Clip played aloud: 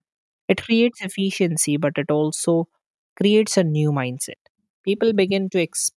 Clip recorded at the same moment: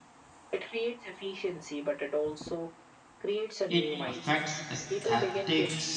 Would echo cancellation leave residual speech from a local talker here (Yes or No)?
Yes